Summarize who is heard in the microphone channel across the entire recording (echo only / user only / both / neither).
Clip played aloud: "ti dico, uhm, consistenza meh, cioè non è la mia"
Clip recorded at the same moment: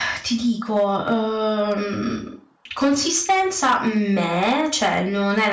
echo only